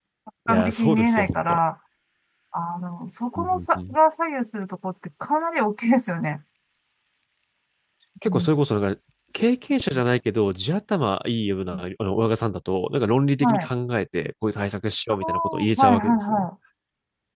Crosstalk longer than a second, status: present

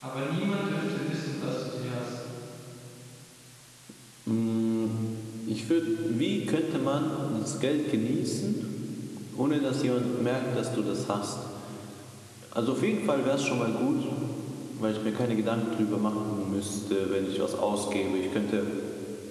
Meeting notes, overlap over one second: none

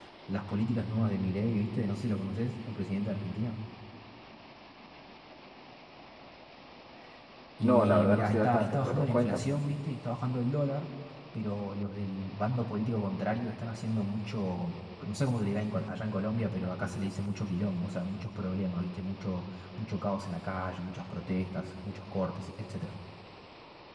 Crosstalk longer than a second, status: present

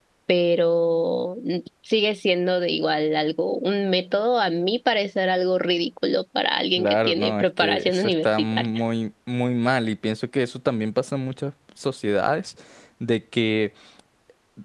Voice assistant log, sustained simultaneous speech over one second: present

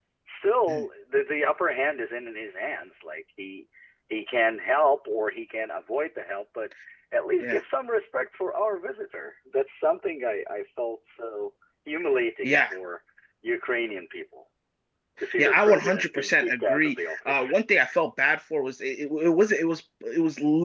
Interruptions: present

